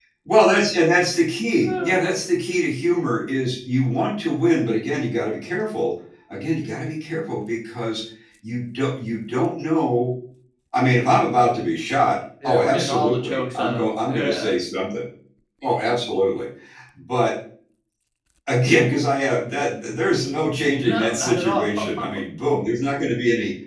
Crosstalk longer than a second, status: present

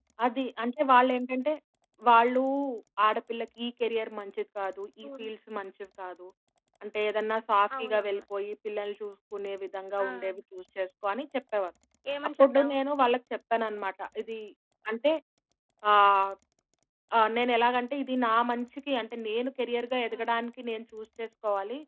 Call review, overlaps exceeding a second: none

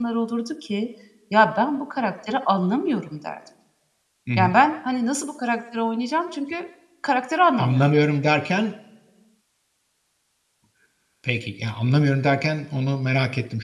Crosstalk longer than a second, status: none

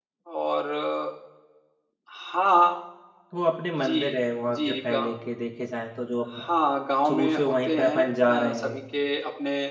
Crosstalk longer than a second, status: present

